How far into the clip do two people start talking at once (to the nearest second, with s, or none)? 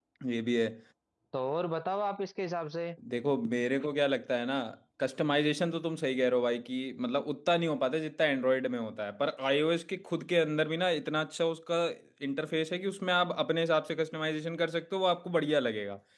none